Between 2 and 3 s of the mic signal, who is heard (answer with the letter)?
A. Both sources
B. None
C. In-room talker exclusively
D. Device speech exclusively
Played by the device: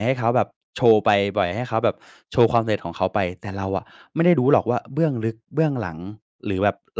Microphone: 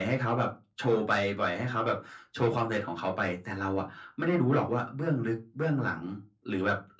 D